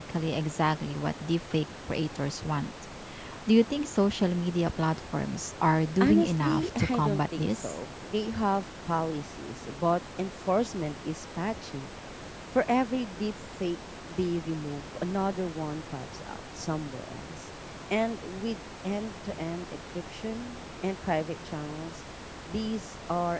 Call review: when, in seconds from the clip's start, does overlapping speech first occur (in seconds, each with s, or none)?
6.0 s